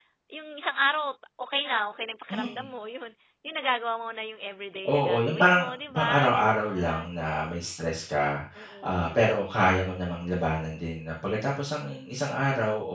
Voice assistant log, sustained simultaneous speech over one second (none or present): present